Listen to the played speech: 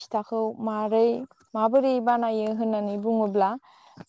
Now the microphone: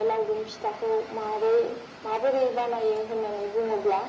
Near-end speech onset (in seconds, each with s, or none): none